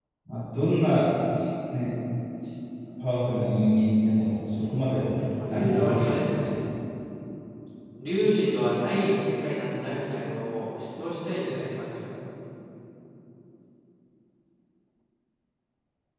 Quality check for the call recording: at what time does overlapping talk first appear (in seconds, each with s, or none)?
4.8 s